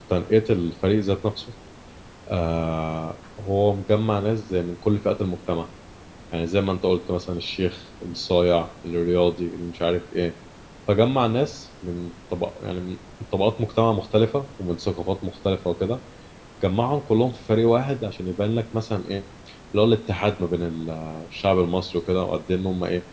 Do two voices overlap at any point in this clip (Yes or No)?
No